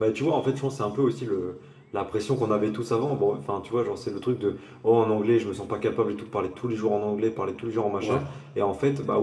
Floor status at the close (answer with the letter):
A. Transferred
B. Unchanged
B